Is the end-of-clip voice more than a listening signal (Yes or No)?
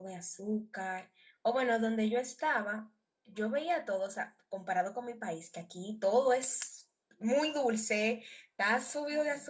No